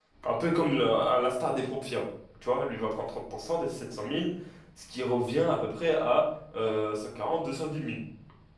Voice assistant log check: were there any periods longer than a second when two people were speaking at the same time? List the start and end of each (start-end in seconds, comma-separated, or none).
none